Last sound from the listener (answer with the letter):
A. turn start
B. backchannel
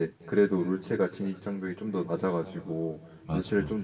B